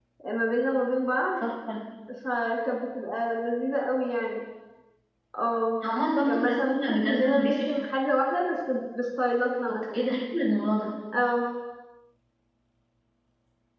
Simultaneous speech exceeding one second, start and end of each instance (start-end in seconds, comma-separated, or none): 6.3-7.7